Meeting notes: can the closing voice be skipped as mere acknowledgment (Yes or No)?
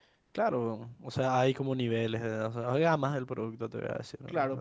No